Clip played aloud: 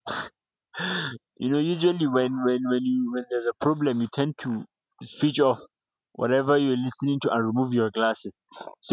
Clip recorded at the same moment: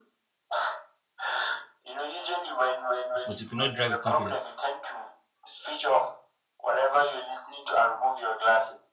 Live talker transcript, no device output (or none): but you could not drive with confidence.